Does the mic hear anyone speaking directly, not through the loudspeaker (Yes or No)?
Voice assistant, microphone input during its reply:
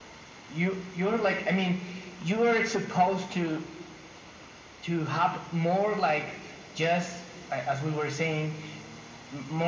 No